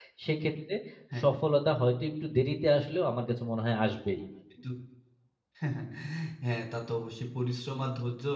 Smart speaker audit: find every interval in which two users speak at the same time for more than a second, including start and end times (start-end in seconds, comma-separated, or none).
none